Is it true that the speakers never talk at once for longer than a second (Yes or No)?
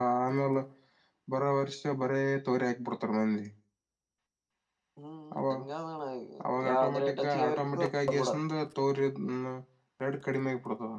No